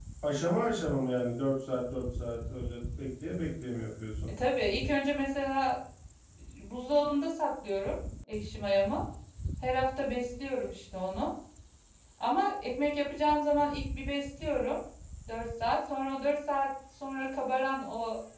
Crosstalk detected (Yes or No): No